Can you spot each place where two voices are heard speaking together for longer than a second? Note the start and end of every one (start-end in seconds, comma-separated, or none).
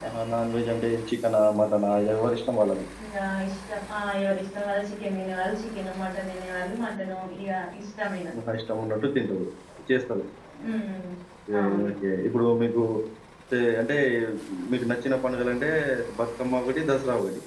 none